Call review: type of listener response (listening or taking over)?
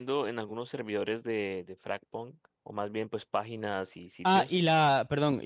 taking over